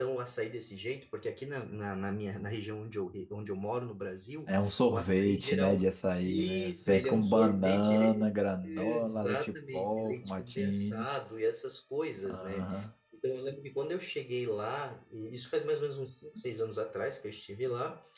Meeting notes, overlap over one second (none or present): present